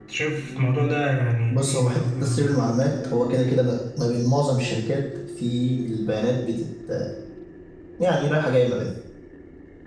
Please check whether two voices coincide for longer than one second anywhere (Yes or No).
Yes